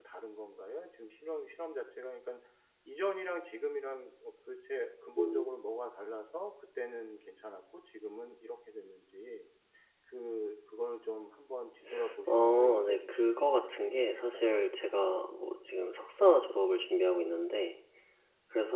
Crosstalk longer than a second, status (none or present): present